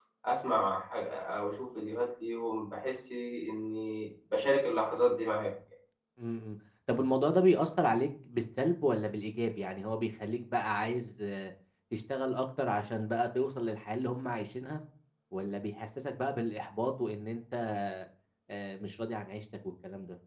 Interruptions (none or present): none